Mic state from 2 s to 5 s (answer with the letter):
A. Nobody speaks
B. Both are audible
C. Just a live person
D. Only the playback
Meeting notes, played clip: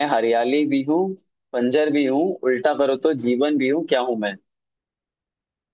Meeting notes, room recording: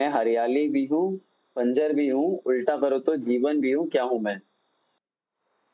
D